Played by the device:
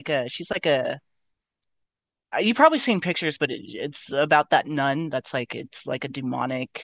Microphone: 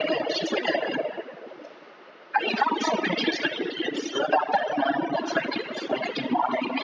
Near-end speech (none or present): none